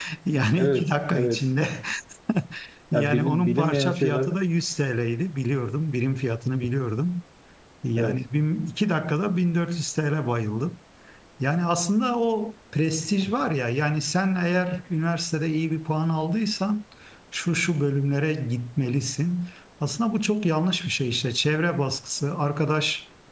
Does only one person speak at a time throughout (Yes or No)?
No